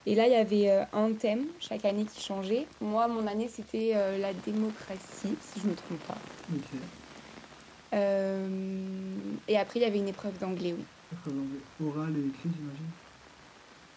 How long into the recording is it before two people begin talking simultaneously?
none

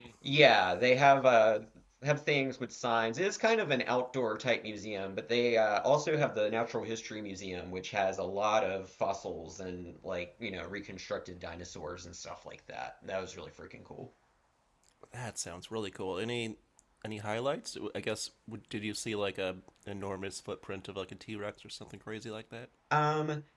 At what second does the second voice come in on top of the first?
none

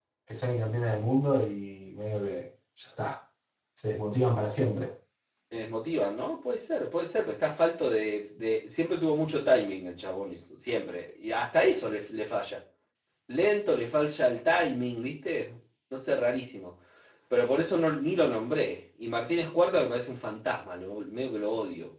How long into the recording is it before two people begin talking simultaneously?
none

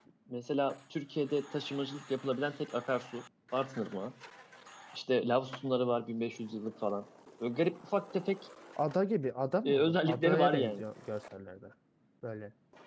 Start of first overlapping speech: 9.7 s

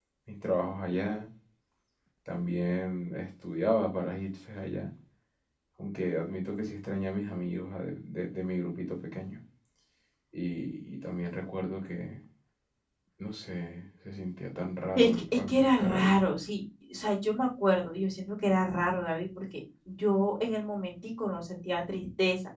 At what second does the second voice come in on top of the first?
15.0 s

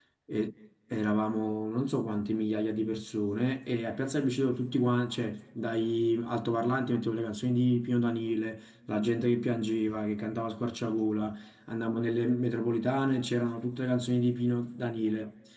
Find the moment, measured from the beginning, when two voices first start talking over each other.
none

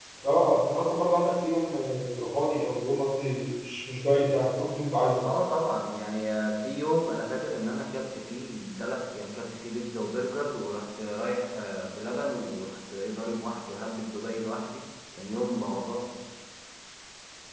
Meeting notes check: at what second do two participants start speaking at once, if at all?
none

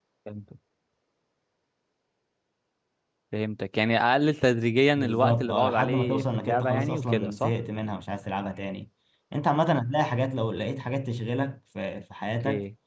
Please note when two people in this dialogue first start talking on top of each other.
5.0 s

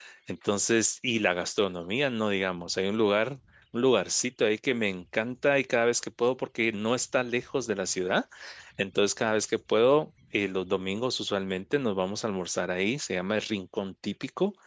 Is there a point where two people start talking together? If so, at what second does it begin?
none

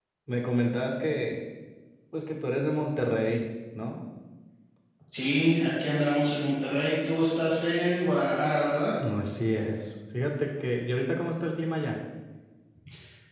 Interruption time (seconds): none

